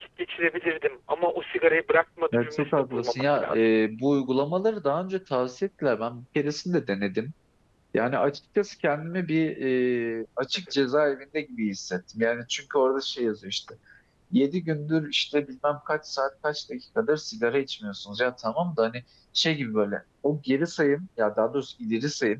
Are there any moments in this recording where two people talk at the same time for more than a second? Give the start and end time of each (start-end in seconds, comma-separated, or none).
2.3-3.7